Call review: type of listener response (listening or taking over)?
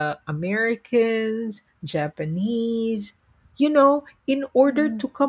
listening